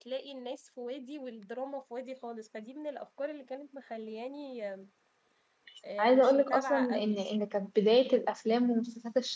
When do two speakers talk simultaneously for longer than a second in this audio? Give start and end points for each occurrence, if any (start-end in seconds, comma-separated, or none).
6.0-7.2